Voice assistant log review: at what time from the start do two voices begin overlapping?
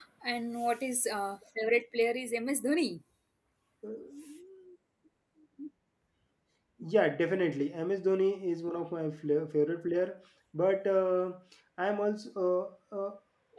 none

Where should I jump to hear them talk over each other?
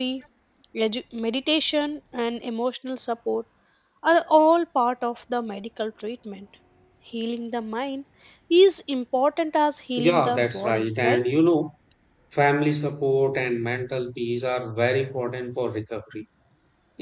10.0 s

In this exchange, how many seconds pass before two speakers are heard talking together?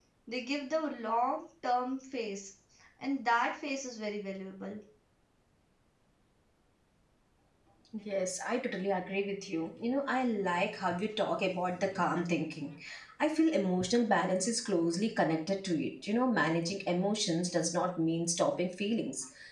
none

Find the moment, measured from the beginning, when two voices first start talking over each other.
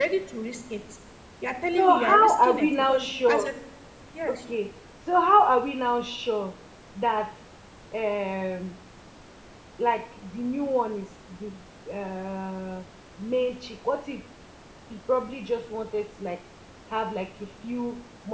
1.8 s

